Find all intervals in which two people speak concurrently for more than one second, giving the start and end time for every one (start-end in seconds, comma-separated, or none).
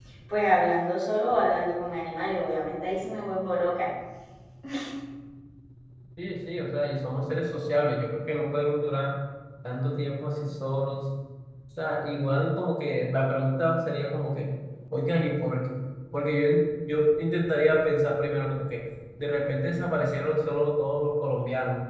none